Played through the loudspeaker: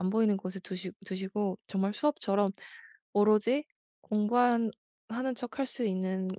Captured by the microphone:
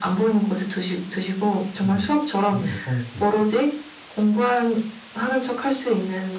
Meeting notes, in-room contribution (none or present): present